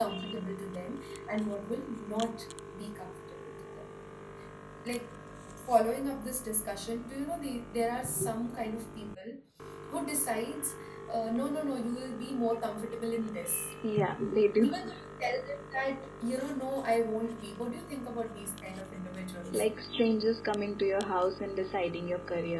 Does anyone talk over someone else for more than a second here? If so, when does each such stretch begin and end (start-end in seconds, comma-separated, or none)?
none